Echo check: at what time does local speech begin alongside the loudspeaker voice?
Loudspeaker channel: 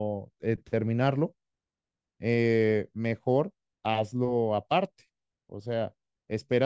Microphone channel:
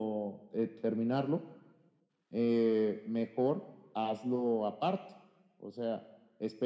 none

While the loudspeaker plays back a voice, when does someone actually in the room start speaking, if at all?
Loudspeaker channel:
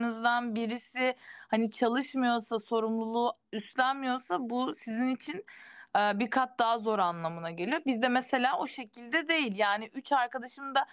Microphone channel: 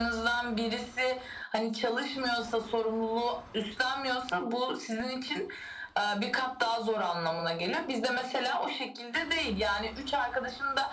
none

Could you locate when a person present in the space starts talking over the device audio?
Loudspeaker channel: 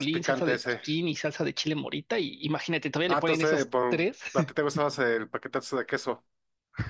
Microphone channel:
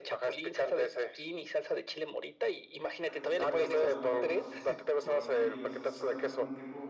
3.0 s

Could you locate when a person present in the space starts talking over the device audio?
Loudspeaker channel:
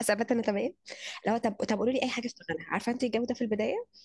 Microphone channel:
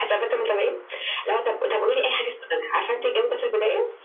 none

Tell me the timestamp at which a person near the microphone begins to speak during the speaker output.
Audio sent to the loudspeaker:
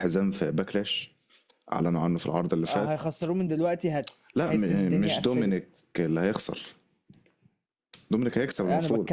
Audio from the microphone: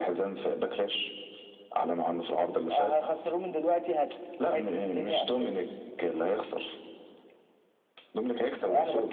none

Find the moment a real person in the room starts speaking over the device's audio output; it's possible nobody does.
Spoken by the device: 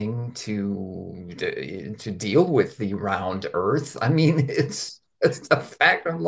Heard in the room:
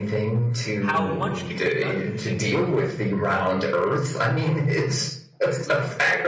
0.8 s

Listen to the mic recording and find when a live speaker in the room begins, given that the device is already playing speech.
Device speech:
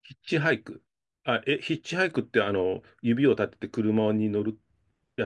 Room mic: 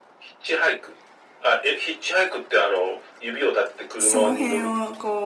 4.0 s

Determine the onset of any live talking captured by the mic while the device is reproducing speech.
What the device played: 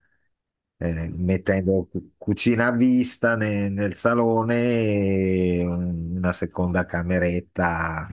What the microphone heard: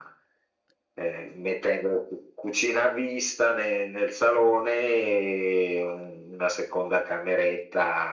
none

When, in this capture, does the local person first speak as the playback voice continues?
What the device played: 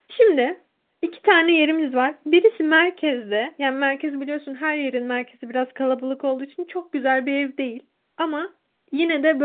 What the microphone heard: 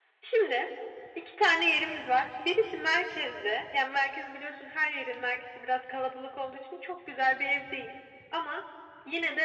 none

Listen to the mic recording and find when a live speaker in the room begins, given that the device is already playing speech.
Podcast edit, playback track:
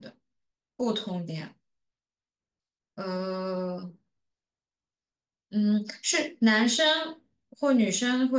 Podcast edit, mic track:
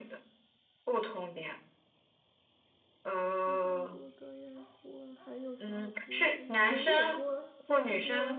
3.4 s

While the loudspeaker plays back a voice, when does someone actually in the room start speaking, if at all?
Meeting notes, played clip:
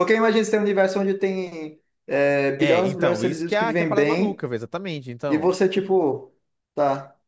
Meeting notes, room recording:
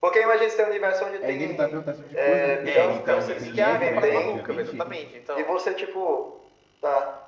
1.2 s

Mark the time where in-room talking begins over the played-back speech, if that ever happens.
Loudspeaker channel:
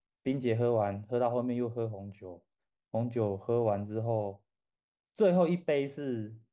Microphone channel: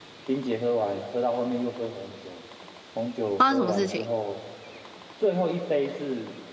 3.4 s

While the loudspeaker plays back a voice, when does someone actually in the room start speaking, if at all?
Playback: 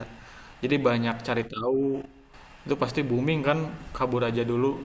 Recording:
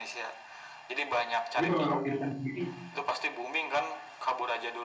1.5 s

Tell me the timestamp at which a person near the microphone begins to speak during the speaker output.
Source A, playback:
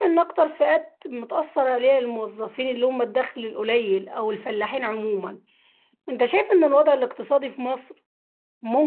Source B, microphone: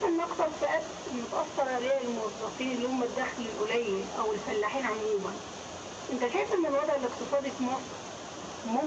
none

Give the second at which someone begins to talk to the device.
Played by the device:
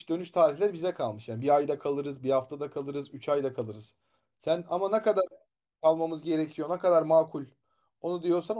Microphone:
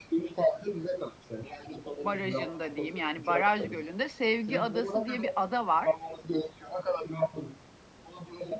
2.0 s

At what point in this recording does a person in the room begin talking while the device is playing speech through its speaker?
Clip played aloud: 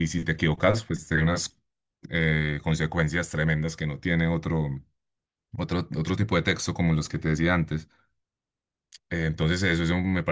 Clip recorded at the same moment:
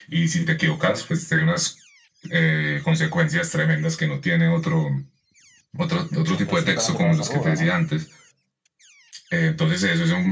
6.3 s

